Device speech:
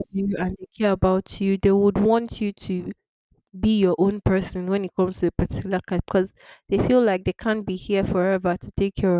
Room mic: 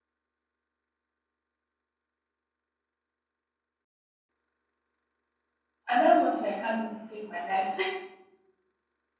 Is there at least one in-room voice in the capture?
Yes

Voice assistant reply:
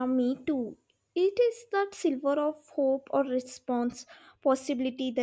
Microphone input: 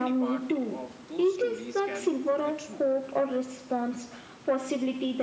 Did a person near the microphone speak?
Yes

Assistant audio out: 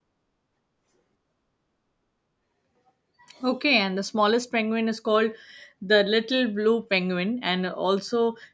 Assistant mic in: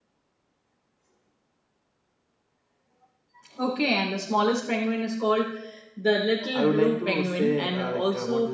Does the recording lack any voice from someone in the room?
No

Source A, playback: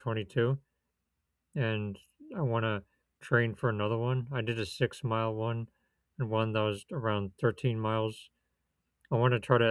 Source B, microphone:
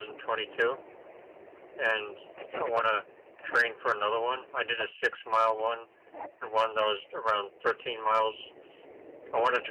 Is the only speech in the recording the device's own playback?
Yes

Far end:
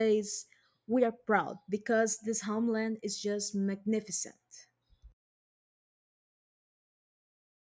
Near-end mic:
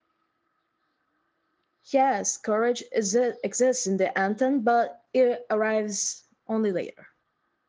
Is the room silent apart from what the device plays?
No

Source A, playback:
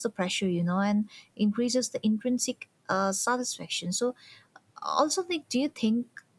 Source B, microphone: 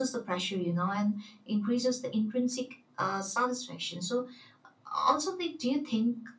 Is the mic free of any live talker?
Yes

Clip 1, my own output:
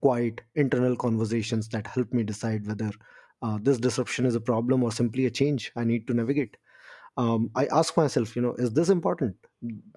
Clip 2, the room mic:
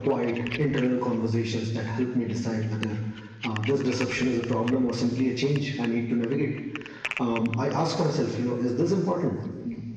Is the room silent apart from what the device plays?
Yes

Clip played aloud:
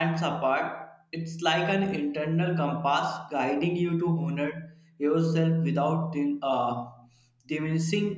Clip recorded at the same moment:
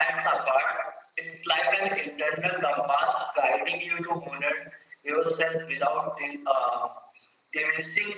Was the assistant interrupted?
No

